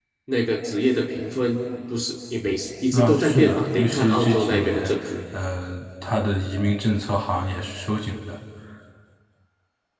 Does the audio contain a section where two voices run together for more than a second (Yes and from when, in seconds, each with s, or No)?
Yes, from 2.9 s